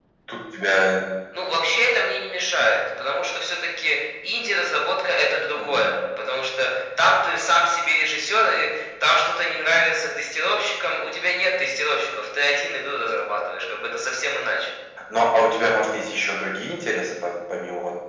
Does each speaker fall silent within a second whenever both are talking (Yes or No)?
Yes